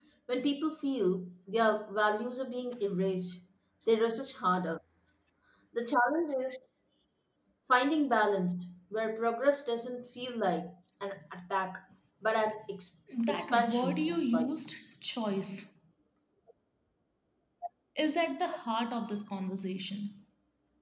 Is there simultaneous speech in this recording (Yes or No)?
Yes